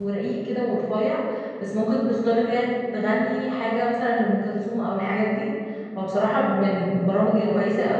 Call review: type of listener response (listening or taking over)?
listening